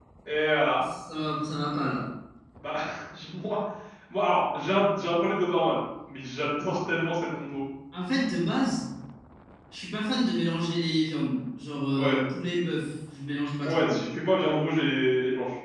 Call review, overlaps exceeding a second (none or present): none